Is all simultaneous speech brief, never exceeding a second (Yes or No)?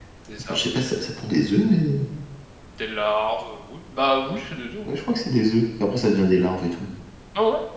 Yes